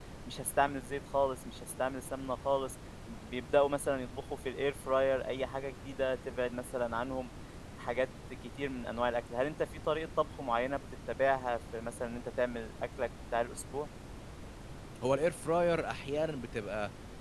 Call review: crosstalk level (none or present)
none